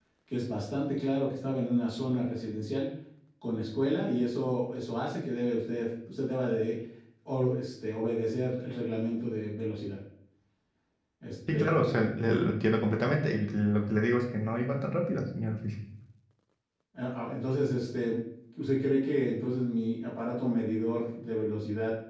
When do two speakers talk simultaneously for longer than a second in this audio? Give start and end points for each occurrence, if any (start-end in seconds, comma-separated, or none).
none